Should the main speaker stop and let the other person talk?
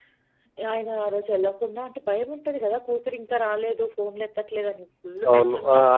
Yes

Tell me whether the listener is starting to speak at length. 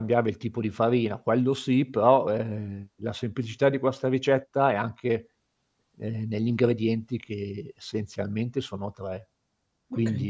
No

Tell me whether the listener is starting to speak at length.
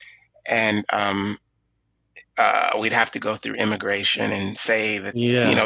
No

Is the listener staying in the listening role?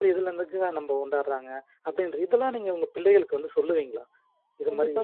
No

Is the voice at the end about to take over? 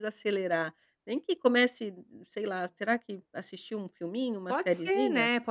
Yes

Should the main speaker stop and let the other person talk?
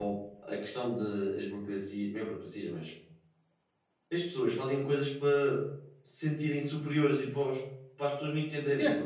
Yes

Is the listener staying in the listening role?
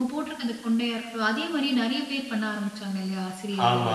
No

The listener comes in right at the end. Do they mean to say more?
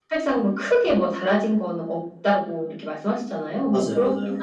No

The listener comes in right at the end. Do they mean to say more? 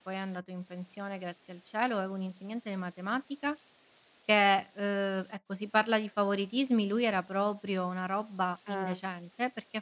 No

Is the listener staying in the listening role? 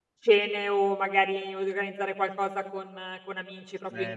No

